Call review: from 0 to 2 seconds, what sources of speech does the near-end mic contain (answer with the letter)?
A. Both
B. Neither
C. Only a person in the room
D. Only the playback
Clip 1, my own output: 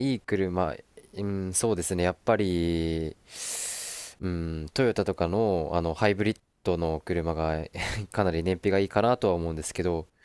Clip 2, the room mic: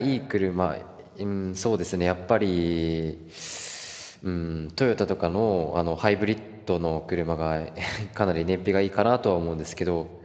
D